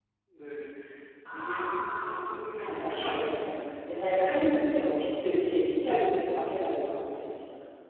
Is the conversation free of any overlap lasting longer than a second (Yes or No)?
No